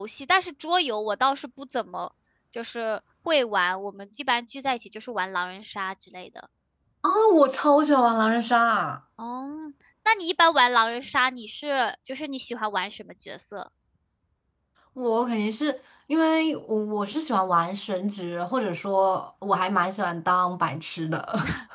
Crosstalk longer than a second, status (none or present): none